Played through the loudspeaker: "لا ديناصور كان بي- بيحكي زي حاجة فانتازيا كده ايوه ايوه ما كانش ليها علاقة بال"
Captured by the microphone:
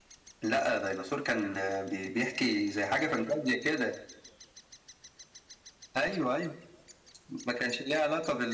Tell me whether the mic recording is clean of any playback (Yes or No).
No